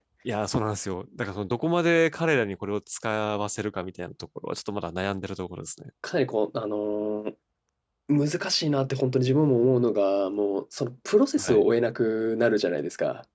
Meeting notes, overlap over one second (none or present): none